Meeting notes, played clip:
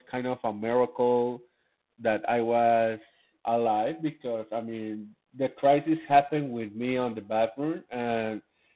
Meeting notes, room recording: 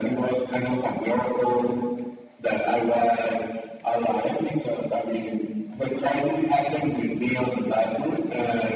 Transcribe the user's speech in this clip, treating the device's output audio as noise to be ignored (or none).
none